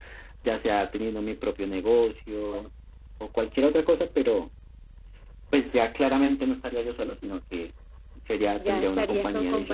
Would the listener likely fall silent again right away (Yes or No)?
No